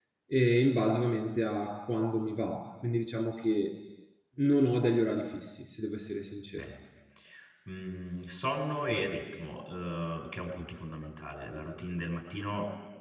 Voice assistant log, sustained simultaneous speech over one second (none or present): none